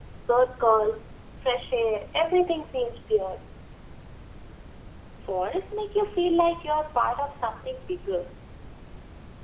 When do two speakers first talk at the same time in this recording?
none

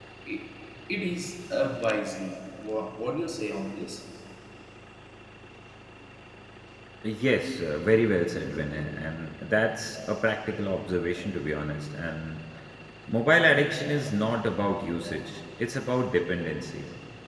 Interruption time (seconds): none

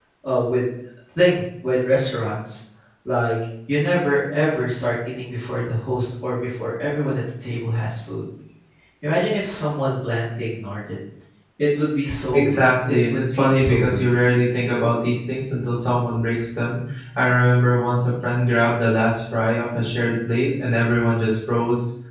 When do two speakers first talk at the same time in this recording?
12.3 s

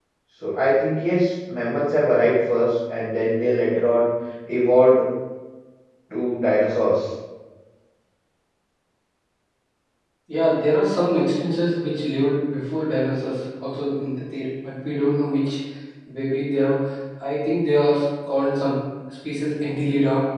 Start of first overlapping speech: none

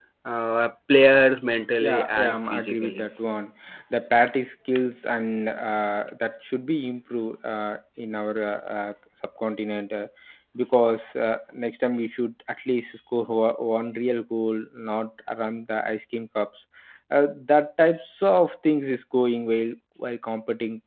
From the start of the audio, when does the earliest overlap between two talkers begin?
1.8 s

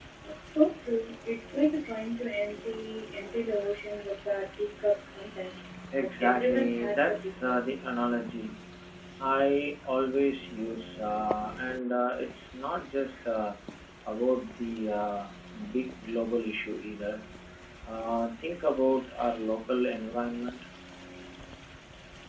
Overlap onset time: 5.9 s

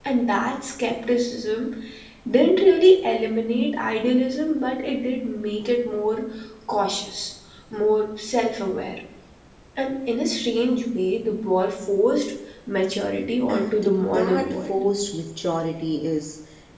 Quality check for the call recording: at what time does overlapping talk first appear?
13.5 s

